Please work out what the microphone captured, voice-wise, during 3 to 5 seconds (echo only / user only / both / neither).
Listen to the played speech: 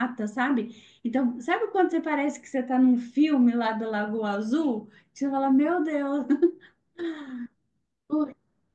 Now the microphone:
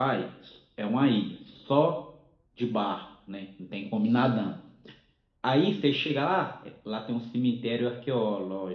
user only